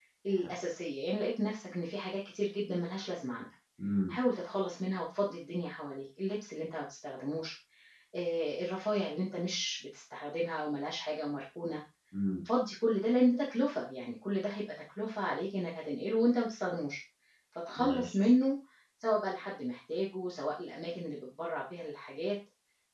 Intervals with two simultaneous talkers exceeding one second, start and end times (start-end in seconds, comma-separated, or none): none